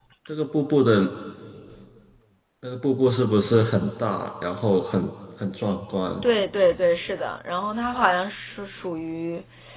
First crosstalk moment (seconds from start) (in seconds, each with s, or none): none